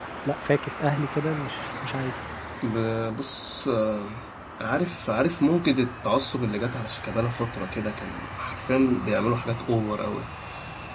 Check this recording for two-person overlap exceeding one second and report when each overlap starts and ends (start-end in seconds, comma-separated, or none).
none